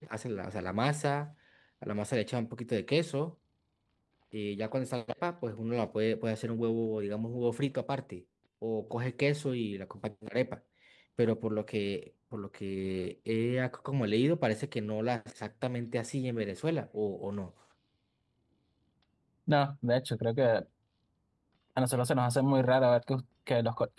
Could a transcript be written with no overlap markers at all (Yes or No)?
Yes